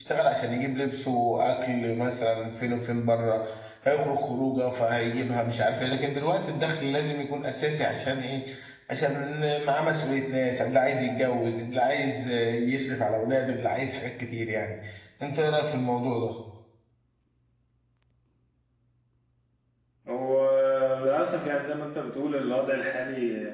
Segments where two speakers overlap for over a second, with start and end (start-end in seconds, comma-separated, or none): none